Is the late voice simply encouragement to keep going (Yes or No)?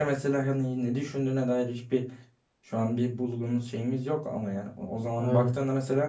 Yes